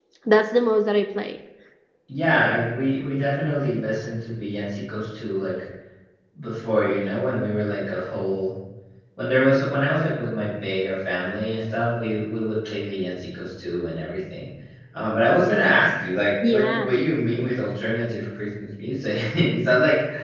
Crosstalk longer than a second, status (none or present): none